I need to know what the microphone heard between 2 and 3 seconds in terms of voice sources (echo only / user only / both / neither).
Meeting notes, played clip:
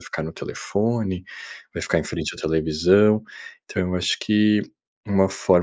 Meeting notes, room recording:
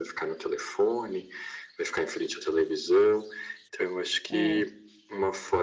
echo only